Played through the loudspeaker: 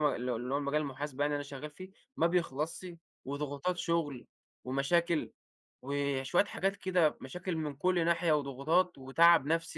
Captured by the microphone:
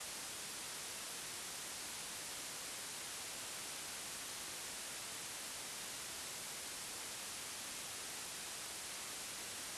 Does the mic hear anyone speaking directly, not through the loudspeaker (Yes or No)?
No